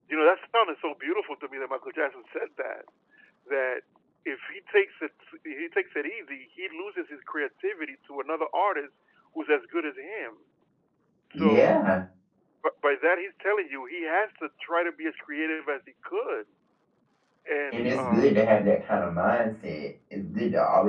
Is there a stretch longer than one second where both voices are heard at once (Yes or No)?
No